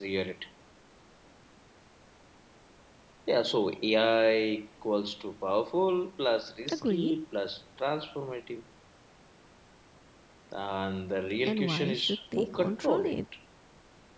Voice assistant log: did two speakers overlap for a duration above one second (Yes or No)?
Yes